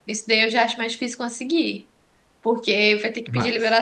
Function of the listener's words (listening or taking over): listening